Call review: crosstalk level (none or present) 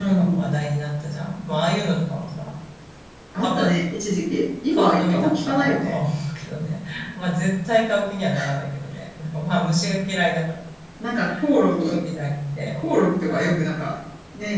present